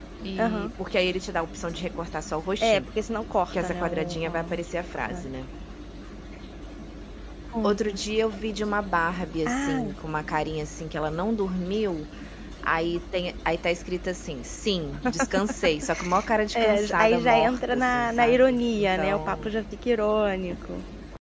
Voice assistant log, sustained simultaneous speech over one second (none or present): present